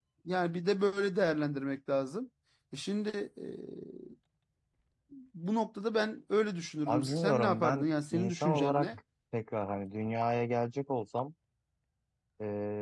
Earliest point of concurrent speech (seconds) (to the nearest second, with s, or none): 7 s